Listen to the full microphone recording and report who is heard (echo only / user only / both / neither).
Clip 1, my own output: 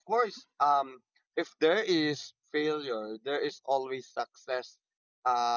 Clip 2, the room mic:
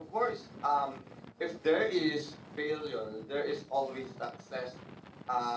echo only